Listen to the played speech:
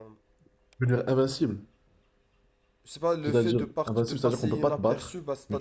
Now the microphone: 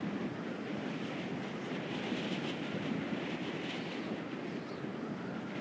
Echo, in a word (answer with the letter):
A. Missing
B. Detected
A